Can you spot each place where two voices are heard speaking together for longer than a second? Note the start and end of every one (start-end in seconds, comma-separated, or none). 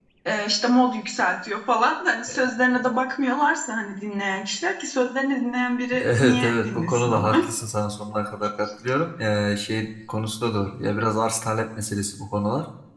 6.0-7.3